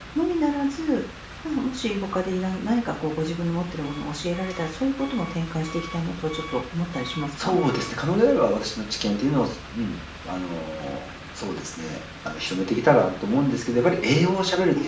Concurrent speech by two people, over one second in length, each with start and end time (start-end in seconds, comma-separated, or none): none